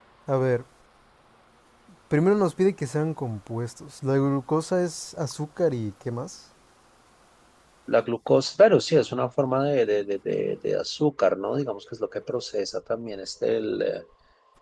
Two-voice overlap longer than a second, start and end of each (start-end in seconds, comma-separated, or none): none